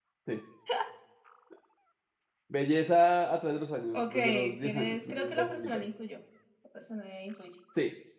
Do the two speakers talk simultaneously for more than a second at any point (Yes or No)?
Yes